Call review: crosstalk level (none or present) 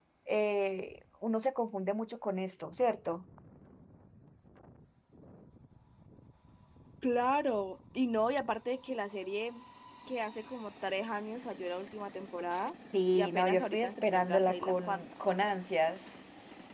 present